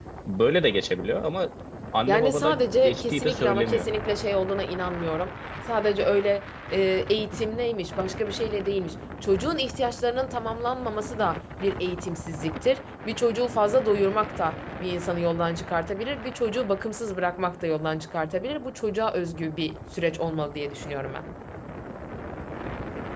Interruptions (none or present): present